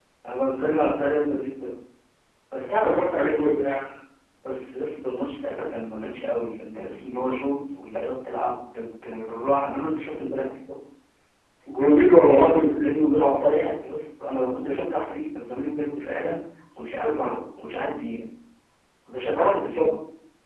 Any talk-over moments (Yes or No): Yes